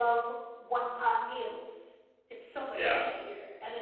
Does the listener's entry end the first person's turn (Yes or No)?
No